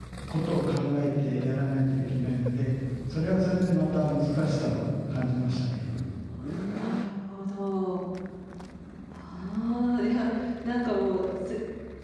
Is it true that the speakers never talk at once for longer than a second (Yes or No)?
Yes